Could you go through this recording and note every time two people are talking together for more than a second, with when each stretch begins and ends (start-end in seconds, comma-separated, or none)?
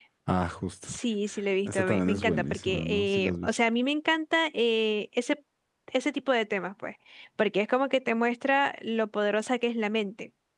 1.6-3.5